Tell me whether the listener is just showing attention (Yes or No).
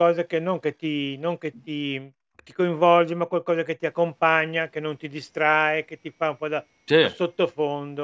Yes